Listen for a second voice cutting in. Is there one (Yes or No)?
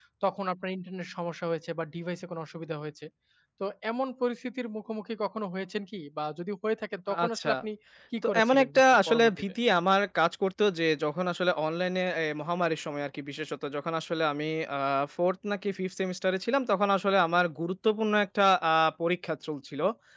Yes